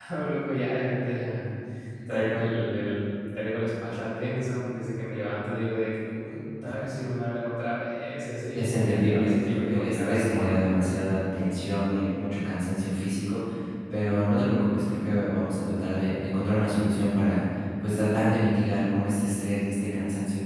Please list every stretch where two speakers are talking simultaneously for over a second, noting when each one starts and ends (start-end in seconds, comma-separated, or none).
8.5-10.6